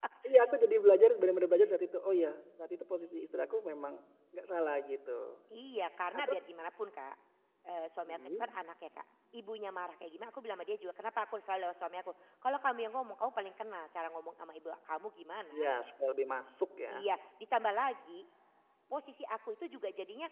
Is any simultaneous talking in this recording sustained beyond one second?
No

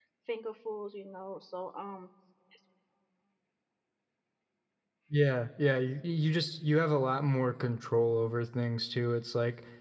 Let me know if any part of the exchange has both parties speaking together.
No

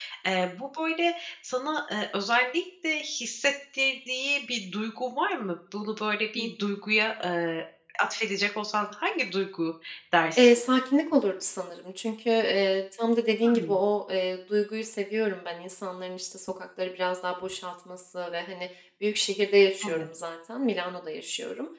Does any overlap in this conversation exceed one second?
No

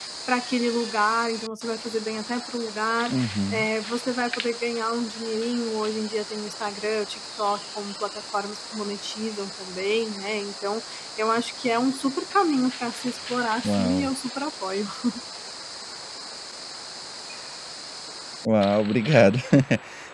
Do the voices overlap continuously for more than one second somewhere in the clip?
No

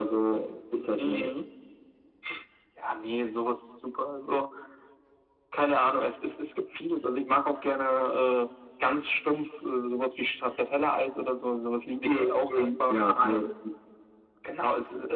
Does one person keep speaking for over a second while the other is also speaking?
Yes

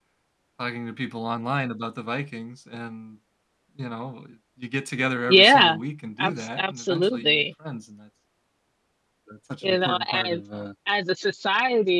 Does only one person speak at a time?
No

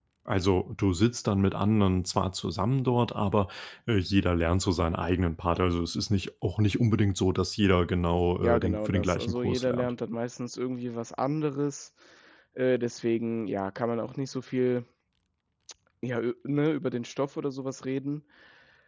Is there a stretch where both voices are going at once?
Yes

